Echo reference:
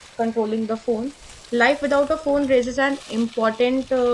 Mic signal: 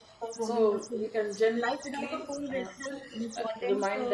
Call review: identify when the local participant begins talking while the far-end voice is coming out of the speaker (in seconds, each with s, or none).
0.4 s